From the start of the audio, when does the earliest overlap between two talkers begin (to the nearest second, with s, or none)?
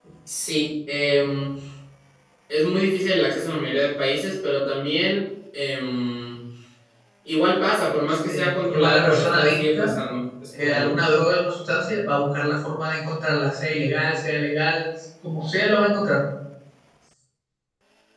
8 s